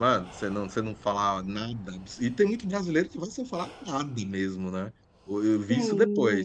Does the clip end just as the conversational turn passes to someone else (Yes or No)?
No